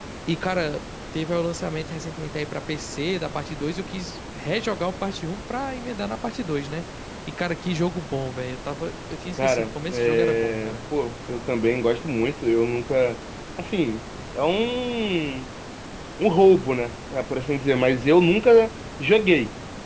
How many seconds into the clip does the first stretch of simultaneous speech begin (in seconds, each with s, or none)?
9.4 s